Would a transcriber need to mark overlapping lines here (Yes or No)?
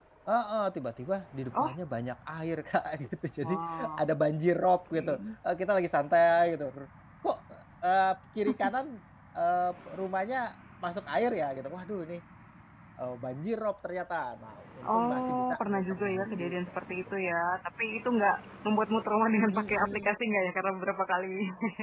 Yes